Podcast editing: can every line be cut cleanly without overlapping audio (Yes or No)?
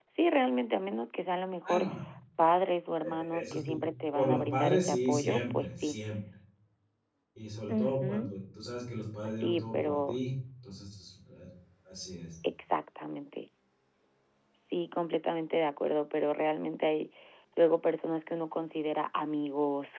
No